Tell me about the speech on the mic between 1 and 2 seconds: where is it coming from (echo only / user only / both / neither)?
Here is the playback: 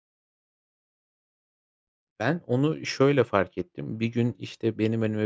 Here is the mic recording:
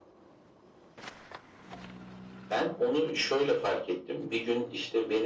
neither